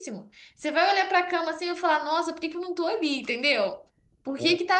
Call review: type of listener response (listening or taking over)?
listening